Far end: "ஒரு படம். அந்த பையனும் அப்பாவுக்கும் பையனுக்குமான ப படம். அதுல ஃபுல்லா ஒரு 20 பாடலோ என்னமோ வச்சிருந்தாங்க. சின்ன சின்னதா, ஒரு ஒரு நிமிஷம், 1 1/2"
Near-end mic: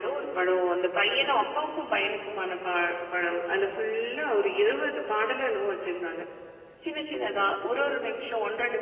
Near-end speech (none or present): none